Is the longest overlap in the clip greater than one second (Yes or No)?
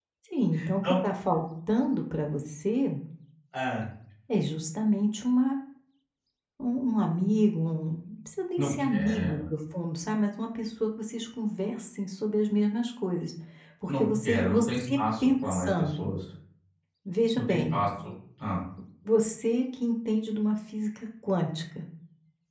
Yes